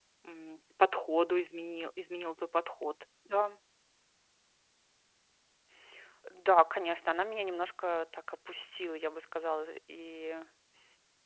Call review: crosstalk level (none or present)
none